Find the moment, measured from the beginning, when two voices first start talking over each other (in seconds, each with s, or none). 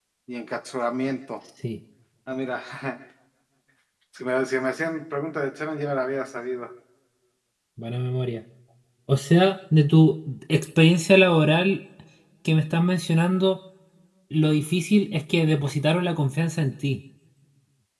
none